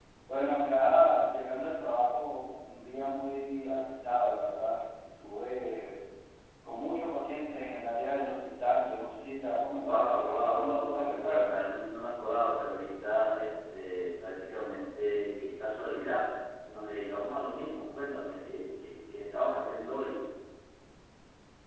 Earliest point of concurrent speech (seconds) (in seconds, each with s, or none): 9.8 s